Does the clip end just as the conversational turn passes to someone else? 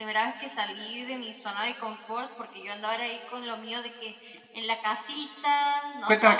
Yes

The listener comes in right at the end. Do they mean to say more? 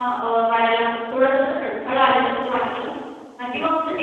No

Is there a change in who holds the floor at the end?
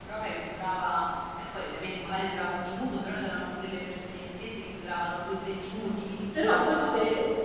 Yes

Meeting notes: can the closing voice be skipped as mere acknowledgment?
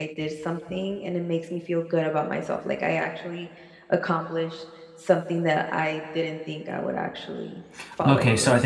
No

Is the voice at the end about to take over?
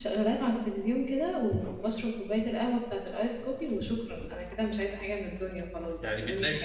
Yes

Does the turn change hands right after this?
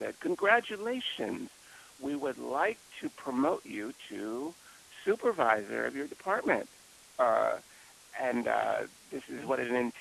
No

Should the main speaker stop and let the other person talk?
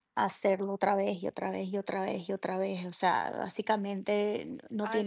Yes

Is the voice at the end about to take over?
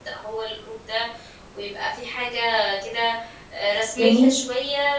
No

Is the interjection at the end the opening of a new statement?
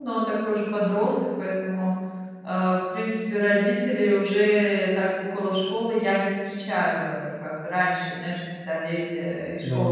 No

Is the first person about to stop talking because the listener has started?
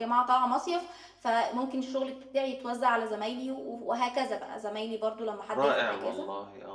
Yes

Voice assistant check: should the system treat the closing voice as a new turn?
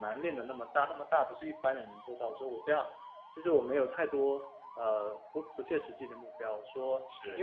No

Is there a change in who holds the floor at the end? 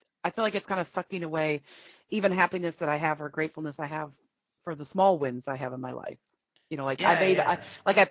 No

